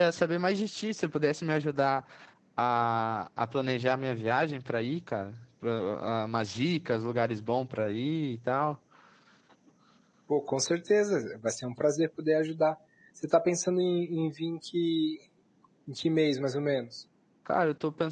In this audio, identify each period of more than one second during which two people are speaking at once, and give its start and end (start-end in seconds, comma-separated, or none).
none